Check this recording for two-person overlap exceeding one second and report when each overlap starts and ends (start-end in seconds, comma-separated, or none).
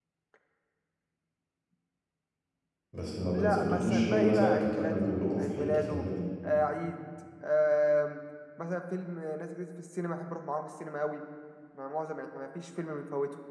3.3-6.1